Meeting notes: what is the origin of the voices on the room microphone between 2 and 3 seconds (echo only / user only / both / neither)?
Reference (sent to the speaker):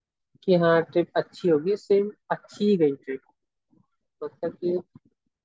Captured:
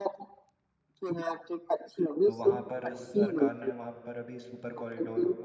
both